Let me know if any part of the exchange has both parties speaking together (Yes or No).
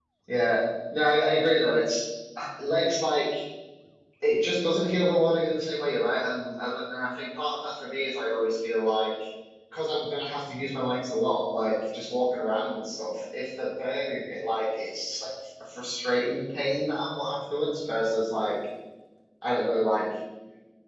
No